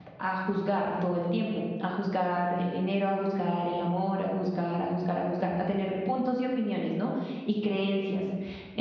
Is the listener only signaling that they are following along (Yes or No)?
Yes